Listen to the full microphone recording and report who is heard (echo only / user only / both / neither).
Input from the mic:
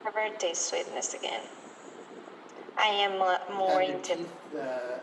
both